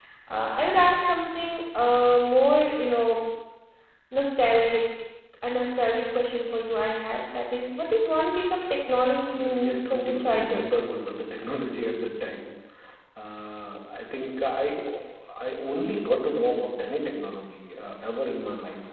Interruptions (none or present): present